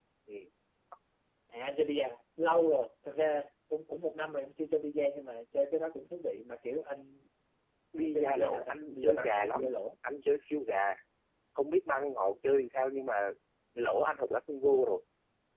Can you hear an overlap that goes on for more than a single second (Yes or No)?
Yes